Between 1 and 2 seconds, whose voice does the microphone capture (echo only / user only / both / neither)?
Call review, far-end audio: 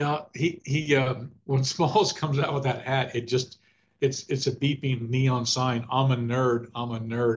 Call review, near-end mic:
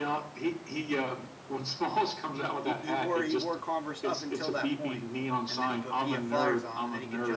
echo only